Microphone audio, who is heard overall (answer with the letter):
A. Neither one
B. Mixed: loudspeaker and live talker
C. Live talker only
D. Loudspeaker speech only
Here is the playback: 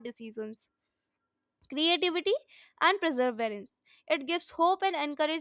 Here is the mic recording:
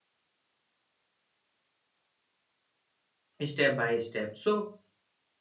C